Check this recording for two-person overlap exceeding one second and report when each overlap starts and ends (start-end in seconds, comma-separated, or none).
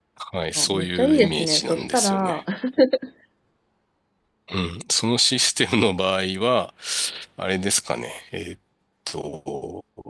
0.6-2.4